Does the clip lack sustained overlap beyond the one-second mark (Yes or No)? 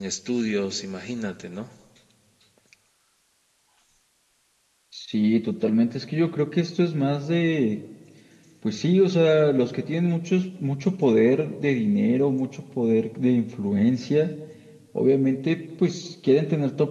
Yes